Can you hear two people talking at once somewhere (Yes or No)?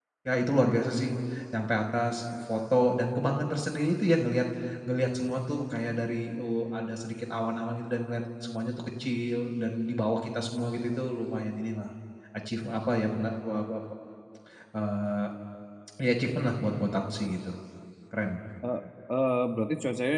No